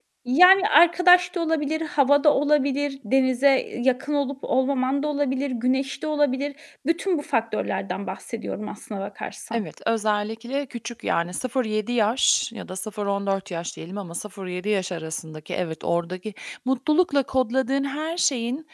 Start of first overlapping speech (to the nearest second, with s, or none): none